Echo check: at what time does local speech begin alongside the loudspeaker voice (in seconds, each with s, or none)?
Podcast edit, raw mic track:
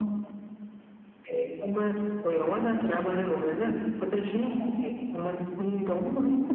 none